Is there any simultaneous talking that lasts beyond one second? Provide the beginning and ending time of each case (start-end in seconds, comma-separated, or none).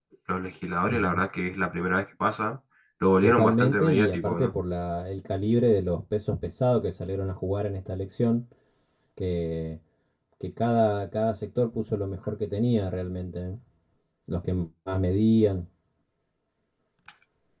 3.2-4.5